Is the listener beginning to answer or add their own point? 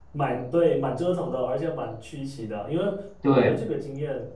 No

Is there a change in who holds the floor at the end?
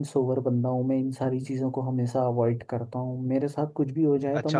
Yes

